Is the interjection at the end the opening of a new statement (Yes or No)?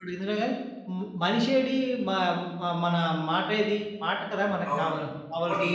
Yes